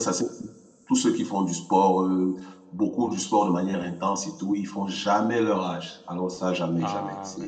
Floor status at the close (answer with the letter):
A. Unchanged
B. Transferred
B